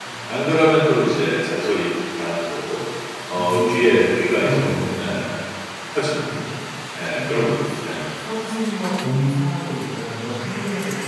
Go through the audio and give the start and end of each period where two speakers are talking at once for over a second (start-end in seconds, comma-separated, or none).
3.3-4.6